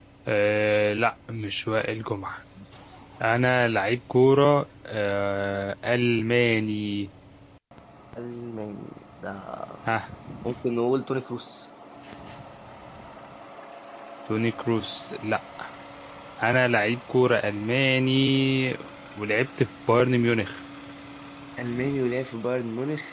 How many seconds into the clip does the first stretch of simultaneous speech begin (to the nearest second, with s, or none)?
none